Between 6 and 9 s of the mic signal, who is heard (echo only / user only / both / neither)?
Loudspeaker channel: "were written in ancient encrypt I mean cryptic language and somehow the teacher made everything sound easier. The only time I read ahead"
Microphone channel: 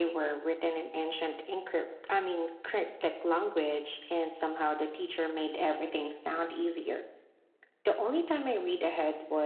echo only